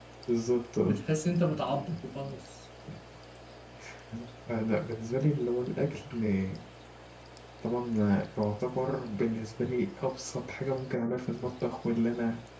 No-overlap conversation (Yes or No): Yes